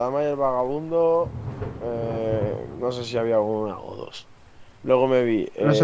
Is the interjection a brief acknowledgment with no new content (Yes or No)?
Yes